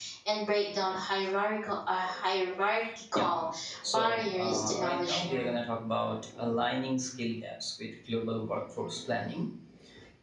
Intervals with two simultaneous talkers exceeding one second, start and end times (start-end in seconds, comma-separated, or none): 3.9-5.5